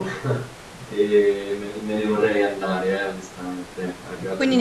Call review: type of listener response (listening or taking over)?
taking over